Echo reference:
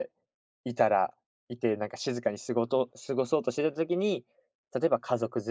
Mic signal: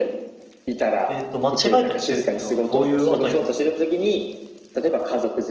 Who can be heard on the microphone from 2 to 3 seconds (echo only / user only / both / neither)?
both